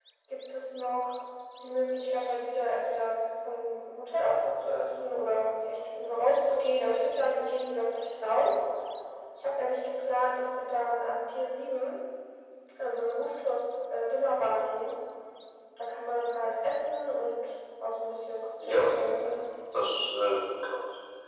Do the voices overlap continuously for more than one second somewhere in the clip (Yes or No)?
No